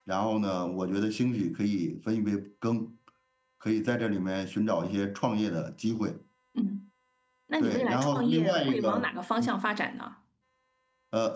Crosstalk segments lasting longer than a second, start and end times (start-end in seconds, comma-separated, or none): 7.6-9.1